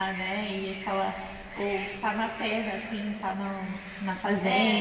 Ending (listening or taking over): taking over